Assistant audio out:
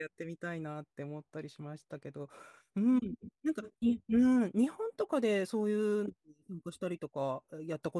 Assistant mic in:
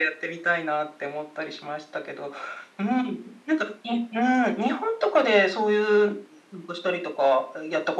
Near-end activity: none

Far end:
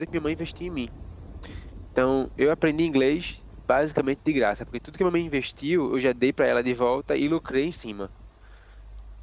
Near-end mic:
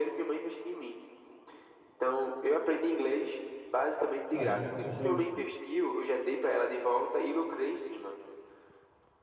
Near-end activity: present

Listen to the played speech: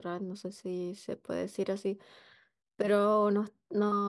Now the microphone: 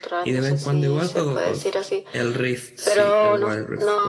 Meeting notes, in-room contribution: present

